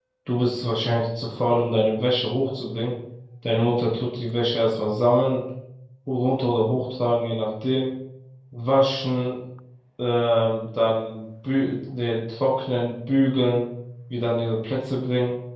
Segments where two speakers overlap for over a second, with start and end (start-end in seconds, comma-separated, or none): none